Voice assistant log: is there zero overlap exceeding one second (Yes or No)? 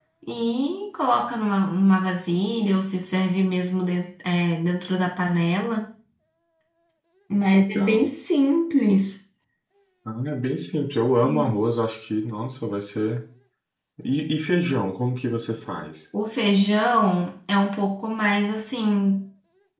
Yes